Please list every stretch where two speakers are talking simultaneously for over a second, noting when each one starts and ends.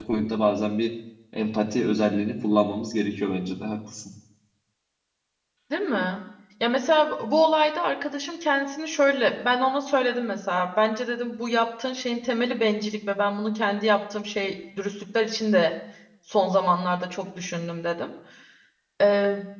none

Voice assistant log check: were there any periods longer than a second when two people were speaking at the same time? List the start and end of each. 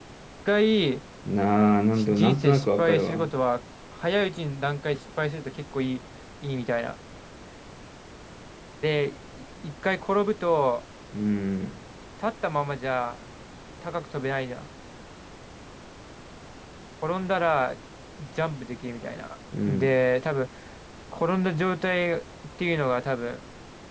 1.9-3.3

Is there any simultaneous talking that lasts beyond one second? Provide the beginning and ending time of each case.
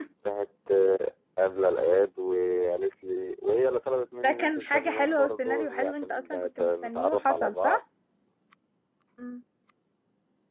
4.2-7.8

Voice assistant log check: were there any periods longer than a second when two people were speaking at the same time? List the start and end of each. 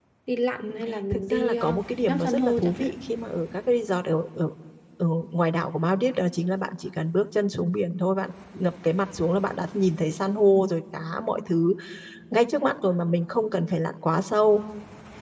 1.1-2.9

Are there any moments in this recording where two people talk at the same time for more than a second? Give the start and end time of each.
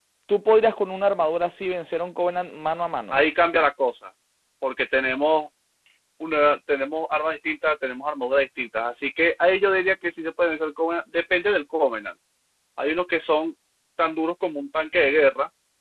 none

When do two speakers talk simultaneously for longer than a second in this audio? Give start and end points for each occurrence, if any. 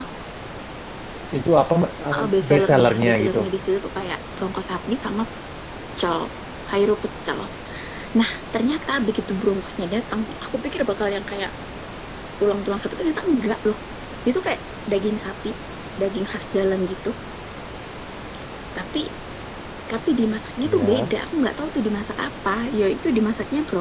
2.2-3.4

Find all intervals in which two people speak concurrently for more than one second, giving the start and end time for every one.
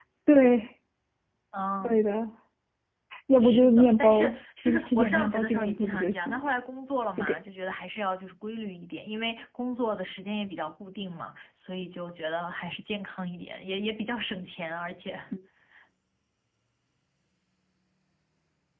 3.4-6.5

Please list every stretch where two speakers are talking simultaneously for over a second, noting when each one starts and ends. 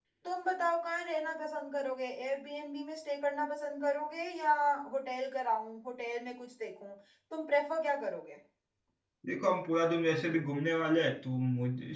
none

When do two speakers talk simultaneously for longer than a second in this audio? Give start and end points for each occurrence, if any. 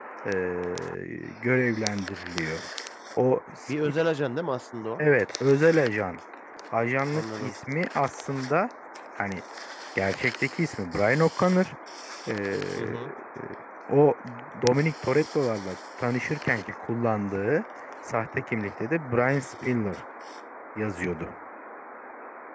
none

